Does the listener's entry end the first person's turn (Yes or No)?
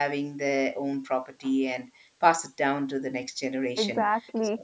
No